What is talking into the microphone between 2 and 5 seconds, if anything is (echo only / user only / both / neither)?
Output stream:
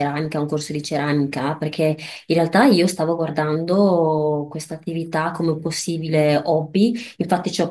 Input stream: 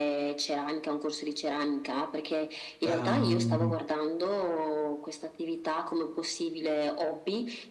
both